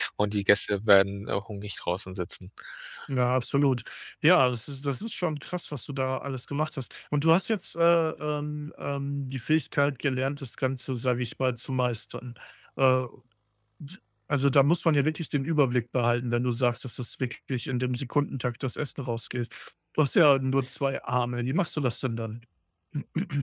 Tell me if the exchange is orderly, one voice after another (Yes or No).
Yes